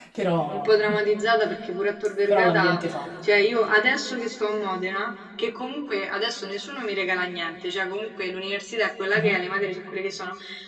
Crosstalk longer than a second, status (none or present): none